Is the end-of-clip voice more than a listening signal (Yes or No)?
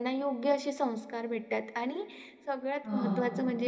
No